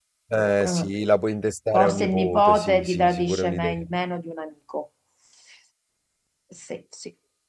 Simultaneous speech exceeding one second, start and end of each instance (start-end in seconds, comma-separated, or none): 1.7-3.8